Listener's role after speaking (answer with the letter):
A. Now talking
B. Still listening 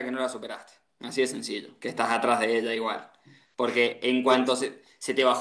B